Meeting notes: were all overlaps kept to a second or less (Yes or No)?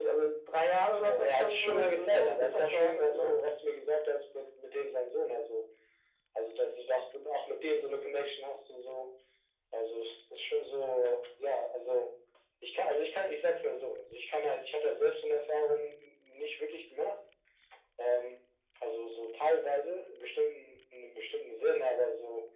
No